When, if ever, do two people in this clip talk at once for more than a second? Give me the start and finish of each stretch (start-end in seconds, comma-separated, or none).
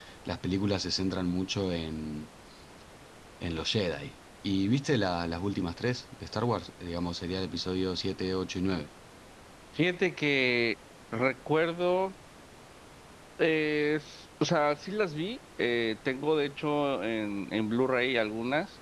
none